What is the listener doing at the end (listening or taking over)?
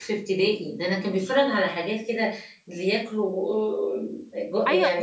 taking over